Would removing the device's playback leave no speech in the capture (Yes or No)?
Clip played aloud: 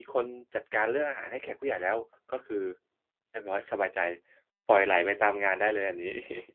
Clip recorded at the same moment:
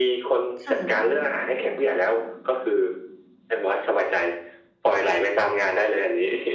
No